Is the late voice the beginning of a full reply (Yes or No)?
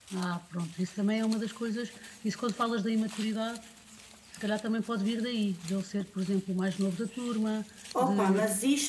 Yes